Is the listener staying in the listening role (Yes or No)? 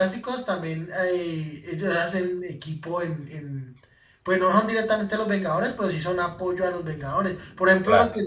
Yes